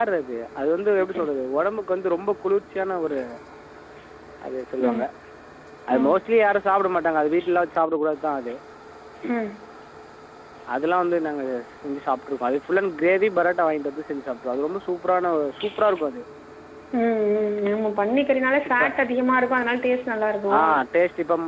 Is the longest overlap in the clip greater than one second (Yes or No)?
No